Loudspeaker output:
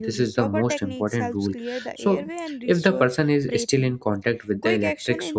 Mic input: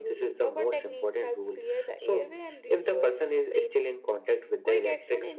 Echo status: present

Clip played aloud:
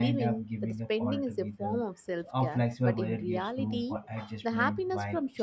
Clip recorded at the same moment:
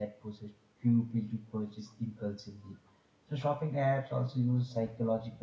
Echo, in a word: none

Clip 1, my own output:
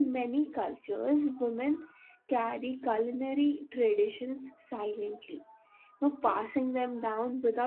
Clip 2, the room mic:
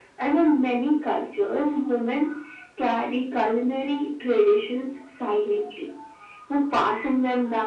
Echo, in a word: present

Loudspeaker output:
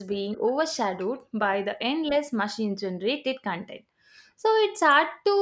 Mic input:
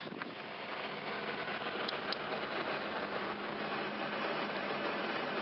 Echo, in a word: none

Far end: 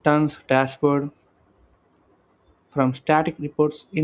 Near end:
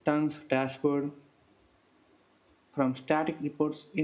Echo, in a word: present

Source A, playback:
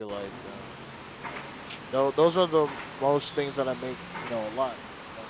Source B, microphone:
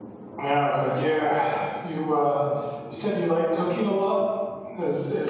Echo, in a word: none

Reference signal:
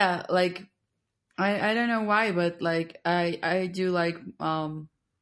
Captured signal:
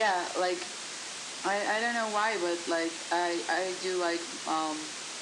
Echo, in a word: present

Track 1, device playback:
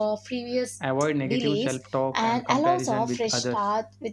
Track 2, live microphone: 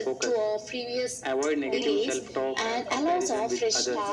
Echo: present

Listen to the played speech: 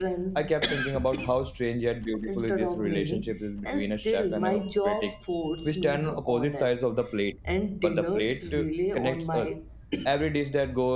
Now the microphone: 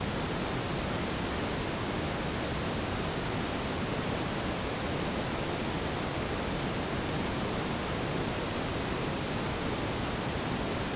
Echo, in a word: none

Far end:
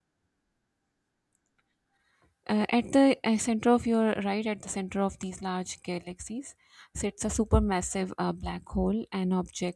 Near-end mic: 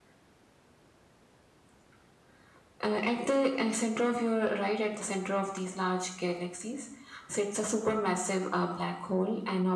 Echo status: present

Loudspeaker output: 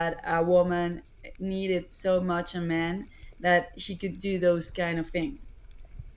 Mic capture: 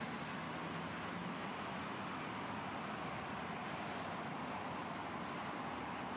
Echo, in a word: none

